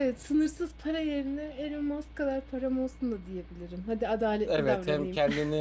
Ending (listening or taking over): taking over